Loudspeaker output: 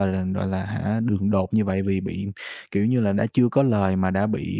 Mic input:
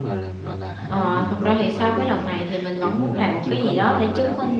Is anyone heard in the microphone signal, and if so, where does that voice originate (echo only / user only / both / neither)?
both